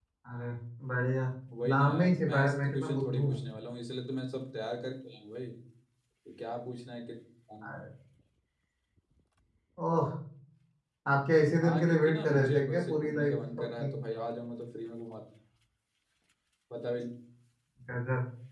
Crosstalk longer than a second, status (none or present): present